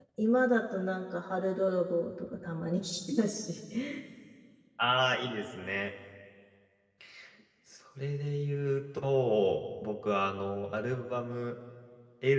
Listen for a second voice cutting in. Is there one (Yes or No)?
No